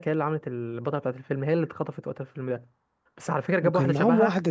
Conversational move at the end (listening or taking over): taking over